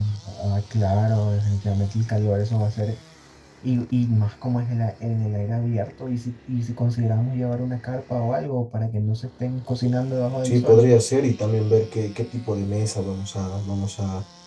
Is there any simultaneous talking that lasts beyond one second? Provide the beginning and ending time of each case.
none

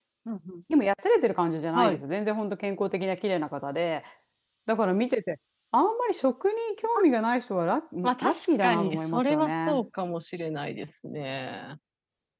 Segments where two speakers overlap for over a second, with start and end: 8.0-9.8

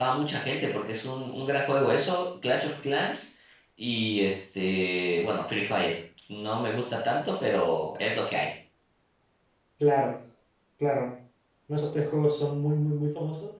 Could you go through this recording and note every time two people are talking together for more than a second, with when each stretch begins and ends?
none

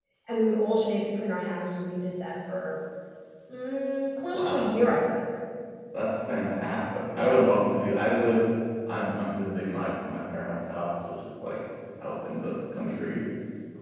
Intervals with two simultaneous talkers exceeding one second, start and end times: none

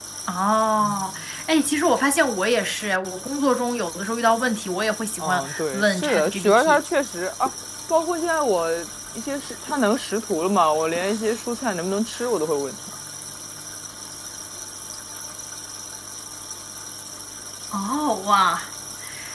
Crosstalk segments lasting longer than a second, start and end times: 5.2-6.8

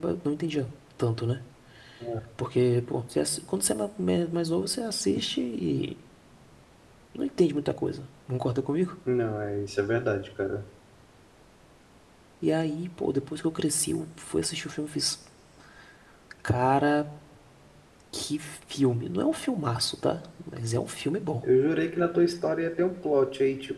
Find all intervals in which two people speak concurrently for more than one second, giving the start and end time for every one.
none

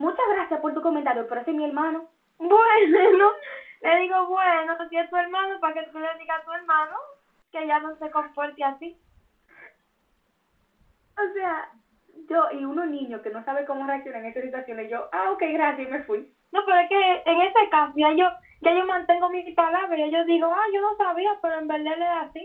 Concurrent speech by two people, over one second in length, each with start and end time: none

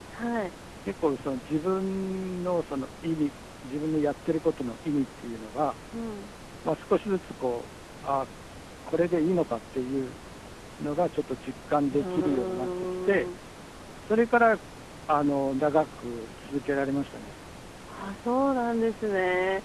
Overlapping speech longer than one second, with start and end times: 11.8-13.3

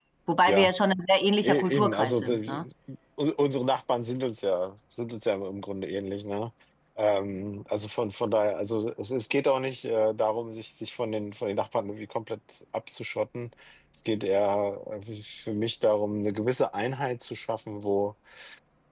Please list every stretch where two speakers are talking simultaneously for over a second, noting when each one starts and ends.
1.4-2.6

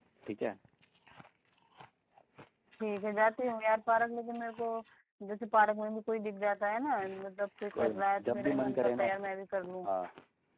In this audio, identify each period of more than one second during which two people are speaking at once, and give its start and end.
7.8-9.0

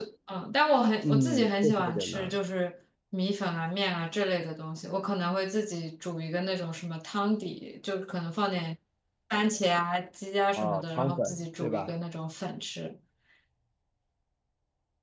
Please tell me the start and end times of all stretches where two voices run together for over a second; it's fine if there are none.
1.0-2.4, 10.6-11.9

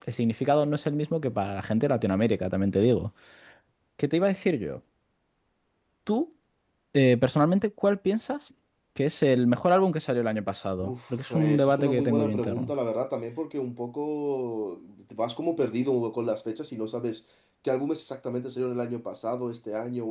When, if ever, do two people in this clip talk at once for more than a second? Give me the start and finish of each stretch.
10.8-12.7

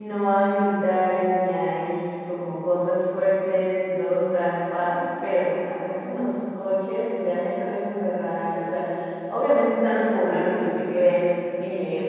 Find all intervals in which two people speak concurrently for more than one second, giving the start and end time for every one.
none

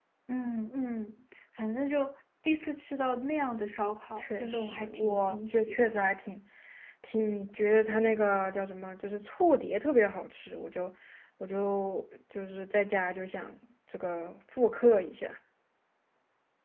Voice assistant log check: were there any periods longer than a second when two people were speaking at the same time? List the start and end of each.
4.2-5.9

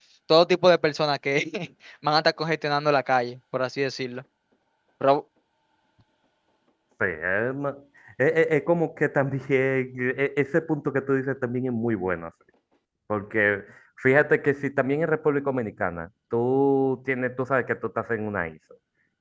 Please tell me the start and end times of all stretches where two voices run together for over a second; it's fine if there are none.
none

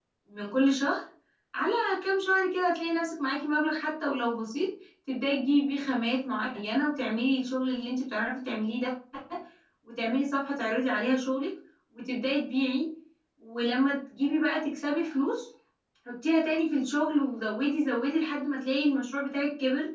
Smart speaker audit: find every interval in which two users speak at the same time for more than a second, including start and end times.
none

